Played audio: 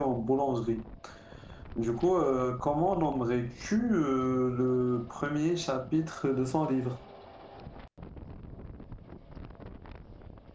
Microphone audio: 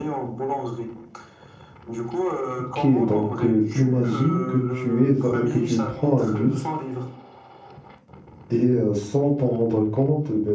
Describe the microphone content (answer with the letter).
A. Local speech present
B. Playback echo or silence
A